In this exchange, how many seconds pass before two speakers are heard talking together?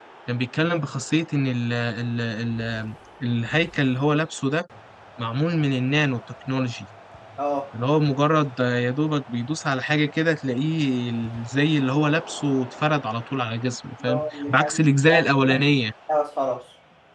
14.0 s

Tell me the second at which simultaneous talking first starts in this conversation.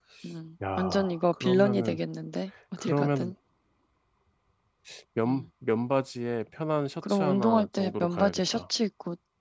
0.8 s

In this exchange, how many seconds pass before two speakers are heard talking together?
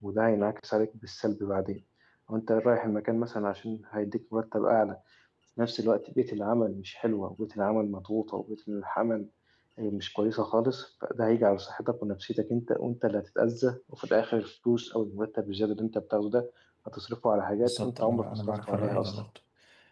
17.6 s

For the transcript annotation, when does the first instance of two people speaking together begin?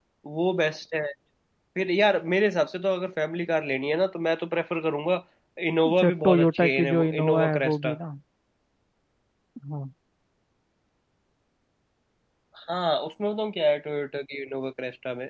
5.9 s

